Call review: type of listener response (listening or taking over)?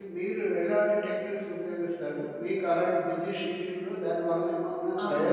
listening